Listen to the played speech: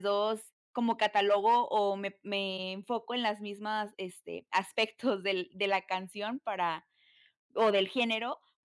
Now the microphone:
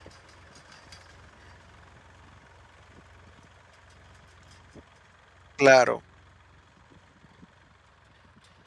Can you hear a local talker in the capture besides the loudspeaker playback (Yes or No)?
Yes